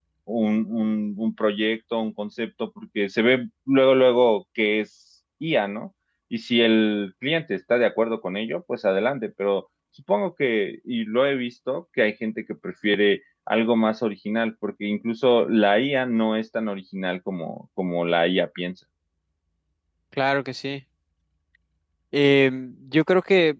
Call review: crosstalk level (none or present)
none